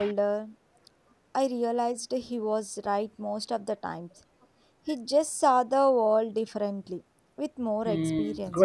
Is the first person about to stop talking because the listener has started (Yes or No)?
Yes